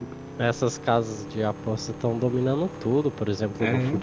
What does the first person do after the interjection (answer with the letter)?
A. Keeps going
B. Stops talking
A